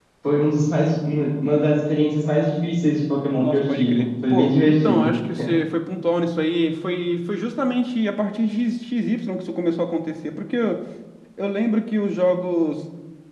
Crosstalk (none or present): present